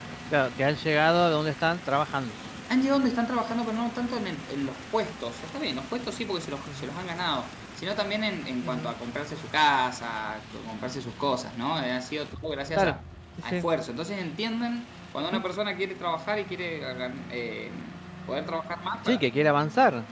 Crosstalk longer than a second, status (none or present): none